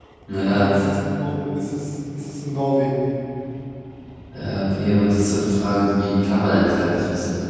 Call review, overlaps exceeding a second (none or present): none